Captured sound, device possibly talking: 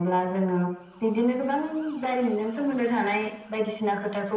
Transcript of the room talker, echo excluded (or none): none